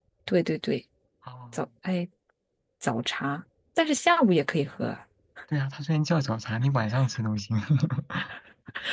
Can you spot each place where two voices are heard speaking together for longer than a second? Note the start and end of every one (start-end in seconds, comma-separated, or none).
none